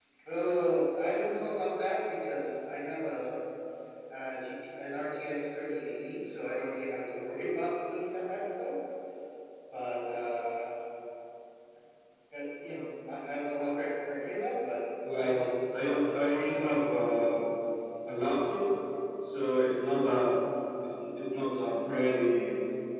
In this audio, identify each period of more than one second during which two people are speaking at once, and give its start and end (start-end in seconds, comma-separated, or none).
15.1-16.6